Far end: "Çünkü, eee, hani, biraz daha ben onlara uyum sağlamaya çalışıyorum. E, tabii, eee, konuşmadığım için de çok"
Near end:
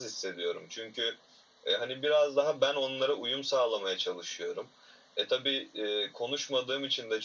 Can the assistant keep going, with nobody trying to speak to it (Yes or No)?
Yes